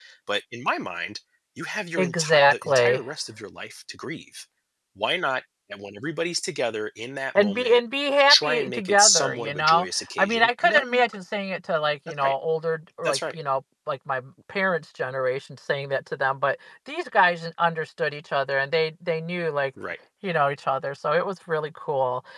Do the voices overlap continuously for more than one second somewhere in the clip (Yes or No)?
Yes